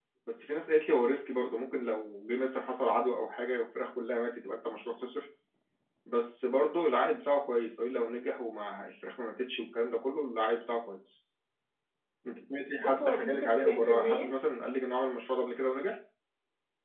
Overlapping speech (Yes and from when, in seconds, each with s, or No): Yes, from 12.8 s